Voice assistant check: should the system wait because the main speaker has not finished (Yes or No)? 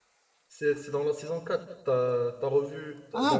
No